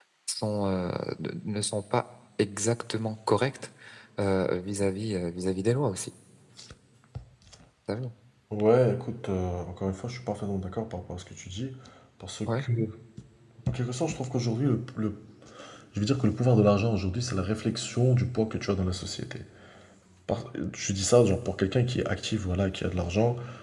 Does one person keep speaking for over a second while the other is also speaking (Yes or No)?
No